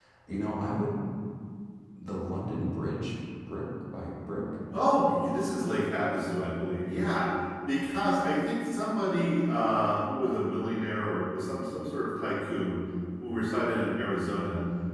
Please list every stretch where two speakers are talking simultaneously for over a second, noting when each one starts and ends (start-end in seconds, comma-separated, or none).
none